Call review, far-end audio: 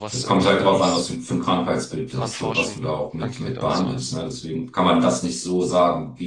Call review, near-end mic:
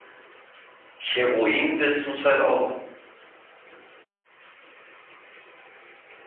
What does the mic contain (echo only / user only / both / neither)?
user only